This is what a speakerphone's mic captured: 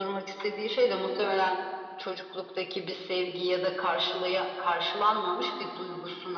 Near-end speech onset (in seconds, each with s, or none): none